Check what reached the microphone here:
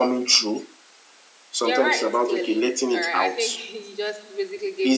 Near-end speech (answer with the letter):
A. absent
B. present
B